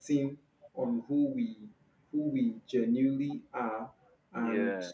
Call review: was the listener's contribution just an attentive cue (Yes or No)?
Yes